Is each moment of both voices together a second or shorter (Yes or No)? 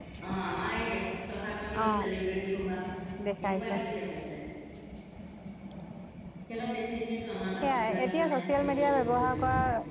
No